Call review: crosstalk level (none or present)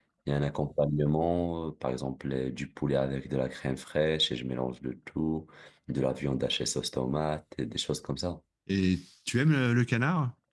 none